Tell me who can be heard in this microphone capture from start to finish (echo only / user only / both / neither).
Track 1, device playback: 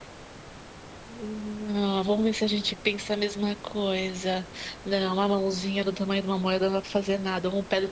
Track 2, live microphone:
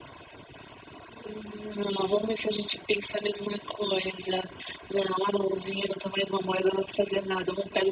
echo only